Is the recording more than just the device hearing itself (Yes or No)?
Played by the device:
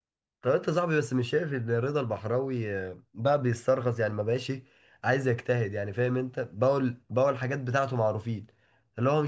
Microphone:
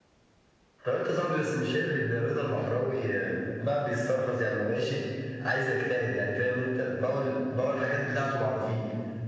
No